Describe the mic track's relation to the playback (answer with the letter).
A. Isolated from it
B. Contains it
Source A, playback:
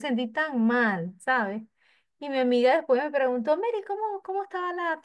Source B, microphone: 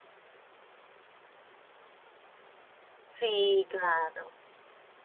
A